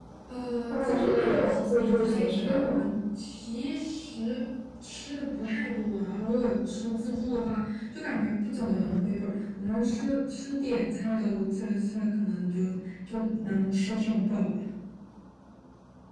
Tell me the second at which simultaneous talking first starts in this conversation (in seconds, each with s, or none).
0.7 s